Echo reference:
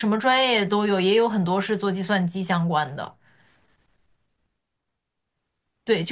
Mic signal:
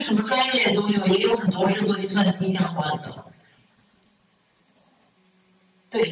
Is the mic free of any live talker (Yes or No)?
Yes